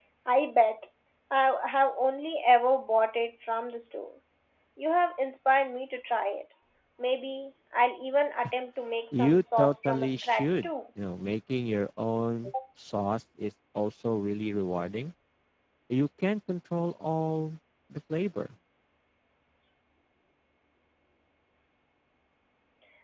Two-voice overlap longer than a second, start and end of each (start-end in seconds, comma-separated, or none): 9.1-10.7